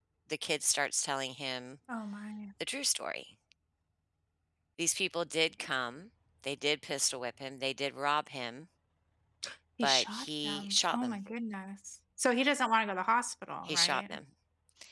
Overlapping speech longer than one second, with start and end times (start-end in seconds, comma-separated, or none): 9.8-11.2